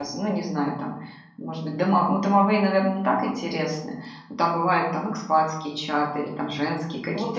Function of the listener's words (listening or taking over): taking over